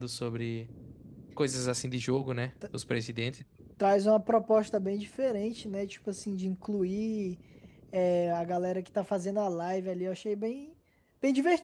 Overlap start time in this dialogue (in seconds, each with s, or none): none